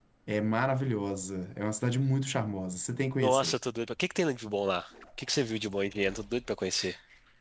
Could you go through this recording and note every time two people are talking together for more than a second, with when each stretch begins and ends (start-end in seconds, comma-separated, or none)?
none